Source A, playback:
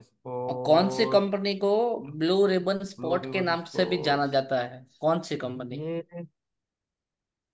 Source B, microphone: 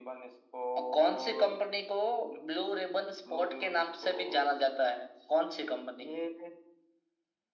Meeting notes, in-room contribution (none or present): none